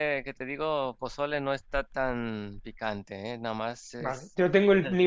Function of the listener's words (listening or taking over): taking over